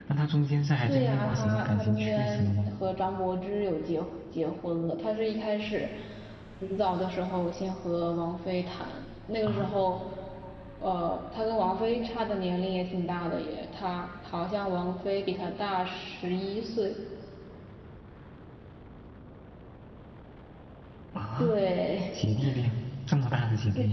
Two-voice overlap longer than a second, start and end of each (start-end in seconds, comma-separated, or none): 0.9-2.7